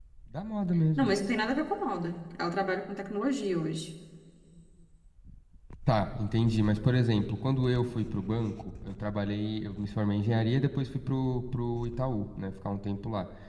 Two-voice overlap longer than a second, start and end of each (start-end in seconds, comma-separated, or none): none